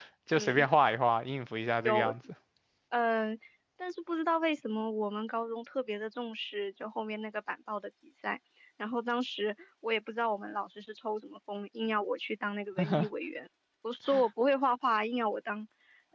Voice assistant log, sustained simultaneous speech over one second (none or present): none